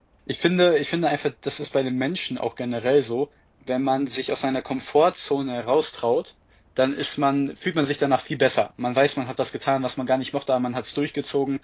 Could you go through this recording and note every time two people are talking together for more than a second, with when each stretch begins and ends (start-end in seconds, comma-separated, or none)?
none